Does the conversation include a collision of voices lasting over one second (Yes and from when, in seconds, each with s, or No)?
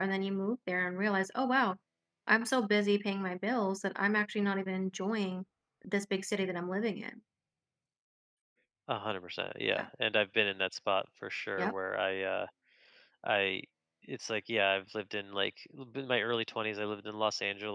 No